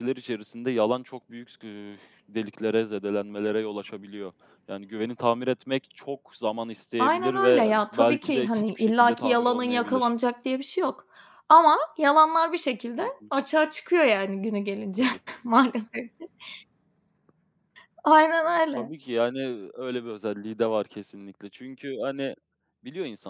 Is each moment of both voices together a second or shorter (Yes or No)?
No